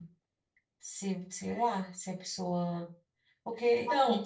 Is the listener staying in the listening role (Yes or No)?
No